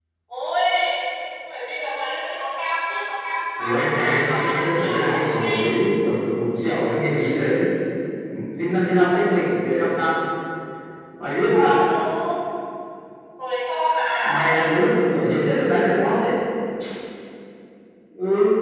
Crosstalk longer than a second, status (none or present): present